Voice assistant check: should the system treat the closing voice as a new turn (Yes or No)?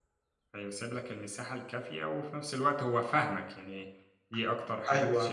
Yes